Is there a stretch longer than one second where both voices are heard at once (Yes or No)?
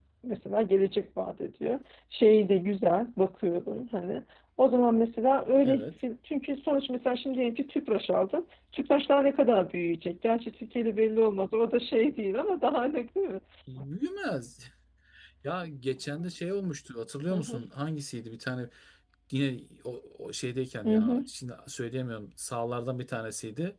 No